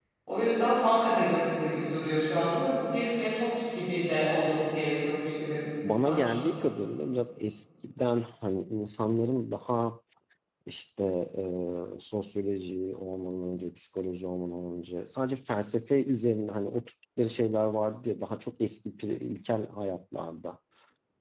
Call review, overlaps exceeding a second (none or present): none